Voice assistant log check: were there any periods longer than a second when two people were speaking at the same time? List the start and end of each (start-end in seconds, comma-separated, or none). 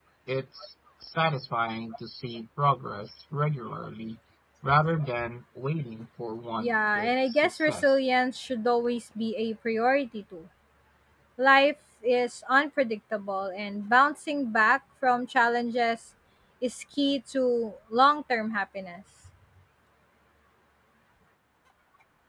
6.6-7.9